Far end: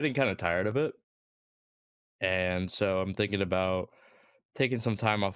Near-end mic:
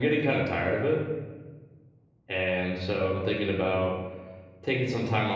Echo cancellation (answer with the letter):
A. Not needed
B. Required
B